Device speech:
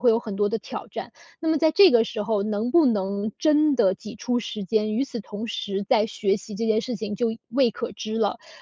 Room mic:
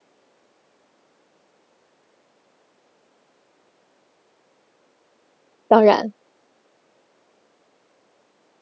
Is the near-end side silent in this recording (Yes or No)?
No